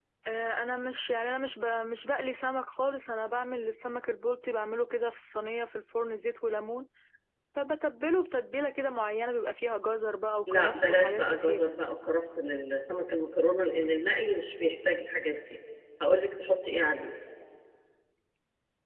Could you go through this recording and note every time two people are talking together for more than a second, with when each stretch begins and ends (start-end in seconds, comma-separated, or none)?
10.5-11.7